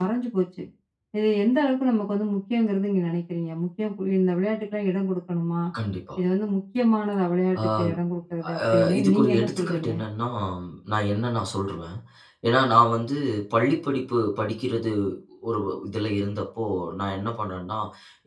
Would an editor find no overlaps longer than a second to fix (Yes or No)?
No